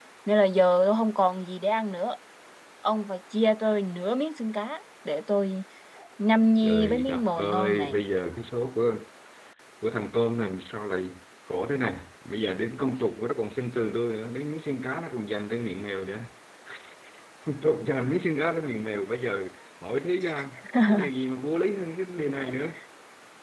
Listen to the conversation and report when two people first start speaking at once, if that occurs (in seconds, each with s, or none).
6.6 s